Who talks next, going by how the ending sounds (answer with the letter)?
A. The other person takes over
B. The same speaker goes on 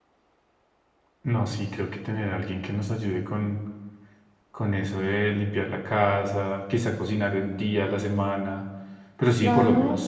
A